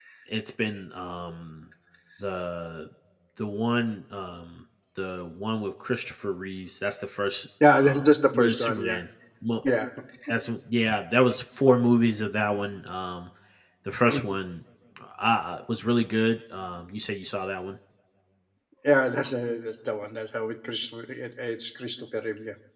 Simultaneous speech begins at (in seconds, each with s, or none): 7.6 s